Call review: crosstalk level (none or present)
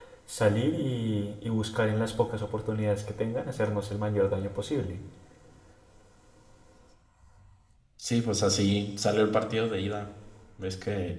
none